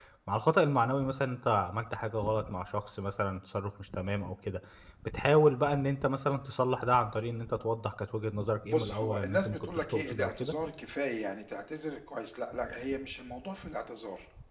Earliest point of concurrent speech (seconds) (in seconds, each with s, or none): 8.7 s